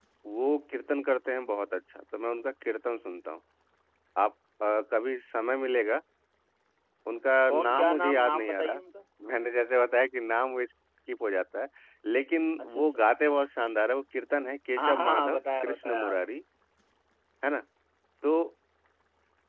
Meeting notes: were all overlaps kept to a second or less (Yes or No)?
No